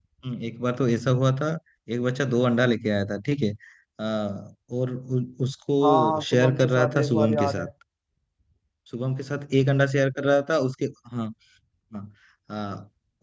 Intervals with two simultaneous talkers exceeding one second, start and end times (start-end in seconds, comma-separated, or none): 5.8-7.6